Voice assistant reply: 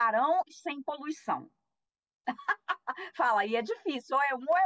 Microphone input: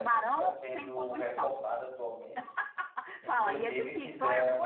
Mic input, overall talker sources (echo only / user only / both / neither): both